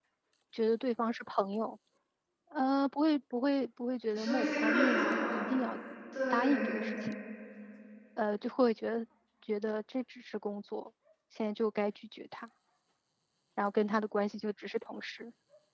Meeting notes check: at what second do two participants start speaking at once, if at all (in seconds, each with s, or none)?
4.1 s